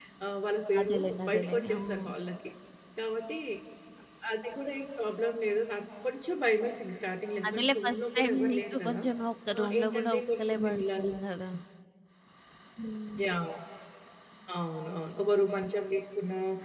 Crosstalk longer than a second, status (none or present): present